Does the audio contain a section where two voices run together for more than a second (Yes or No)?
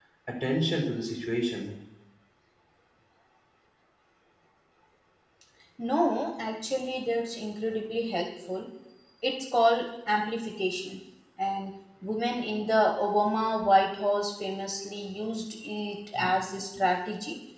No